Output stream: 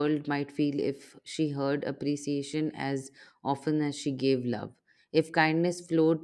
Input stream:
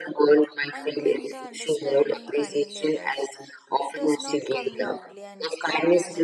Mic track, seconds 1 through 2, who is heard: both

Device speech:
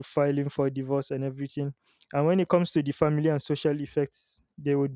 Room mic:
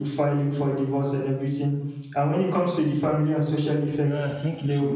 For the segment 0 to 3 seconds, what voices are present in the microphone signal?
echo only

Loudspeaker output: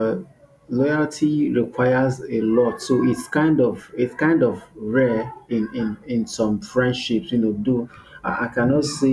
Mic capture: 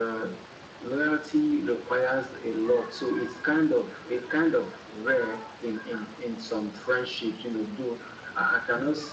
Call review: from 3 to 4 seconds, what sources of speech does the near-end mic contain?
echo only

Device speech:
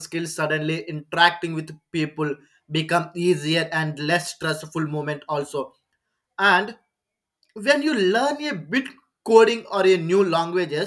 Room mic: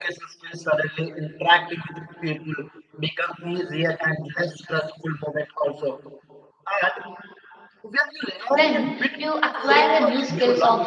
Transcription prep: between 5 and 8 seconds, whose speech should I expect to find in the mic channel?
echo only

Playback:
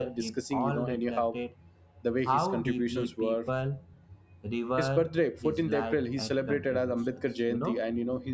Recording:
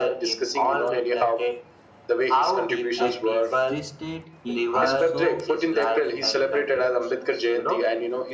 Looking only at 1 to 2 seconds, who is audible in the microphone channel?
echo only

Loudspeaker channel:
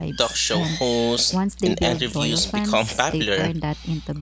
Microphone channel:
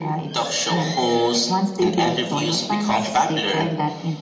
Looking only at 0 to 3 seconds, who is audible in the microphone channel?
echo only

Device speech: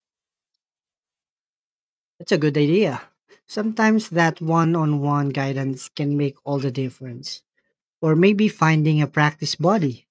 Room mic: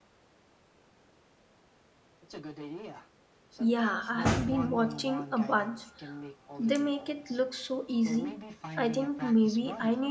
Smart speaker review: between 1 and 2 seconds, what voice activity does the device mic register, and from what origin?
neither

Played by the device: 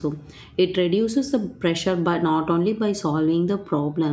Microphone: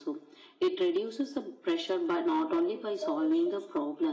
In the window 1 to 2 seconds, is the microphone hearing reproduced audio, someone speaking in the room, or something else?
echo only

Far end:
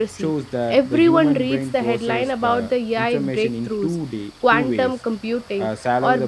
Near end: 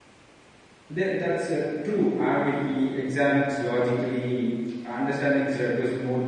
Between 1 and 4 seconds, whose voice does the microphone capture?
user only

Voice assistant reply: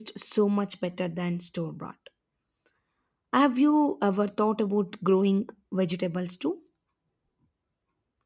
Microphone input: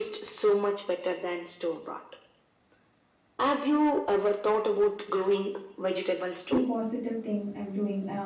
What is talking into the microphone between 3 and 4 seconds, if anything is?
echo only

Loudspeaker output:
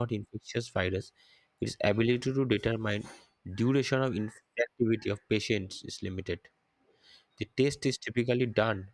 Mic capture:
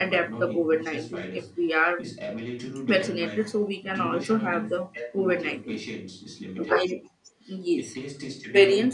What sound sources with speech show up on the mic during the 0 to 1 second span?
both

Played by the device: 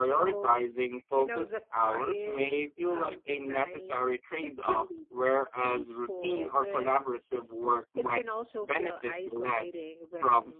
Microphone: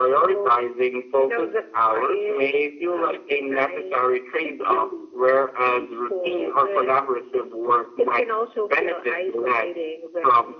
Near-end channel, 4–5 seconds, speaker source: echo only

